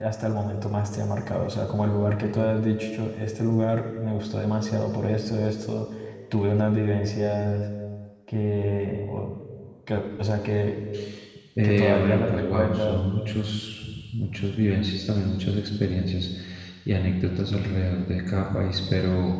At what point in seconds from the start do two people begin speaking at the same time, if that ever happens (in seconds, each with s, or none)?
11.6 s